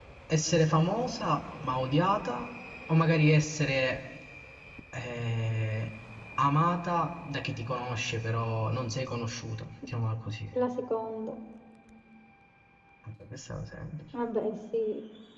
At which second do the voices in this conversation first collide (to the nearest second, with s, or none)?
none